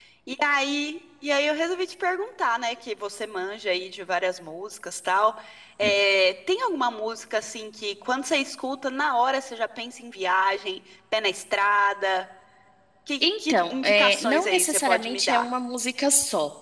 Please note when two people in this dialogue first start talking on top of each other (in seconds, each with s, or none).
13.2 s